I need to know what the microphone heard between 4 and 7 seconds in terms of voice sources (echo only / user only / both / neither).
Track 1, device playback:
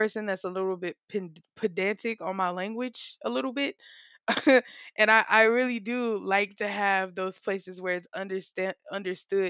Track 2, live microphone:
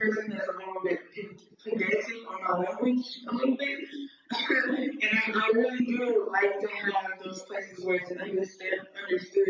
echo only